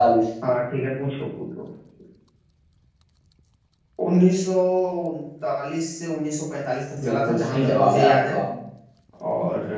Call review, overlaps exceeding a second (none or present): present